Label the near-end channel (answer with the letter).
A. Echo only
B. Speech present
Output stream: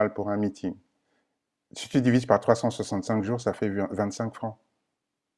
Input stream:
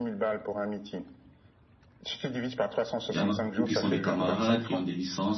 B